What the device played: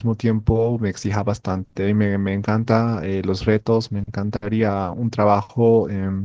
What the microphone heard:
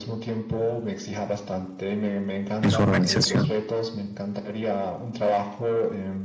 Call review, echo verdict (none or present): present